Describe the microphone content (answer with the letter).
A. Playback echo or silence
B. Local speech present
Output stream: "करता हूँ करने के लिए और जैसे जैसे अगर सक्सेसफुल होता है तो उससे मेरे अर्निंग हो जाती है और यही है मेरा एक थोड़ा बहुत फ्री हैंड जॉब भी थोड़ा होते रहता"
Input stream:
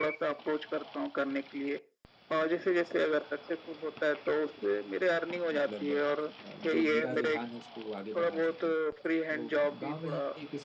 B